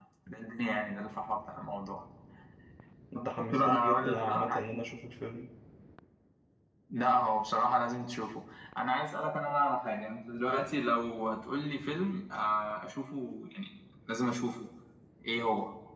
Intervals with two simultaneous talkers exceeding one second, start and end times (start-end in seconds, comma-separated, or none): 3.4-4.6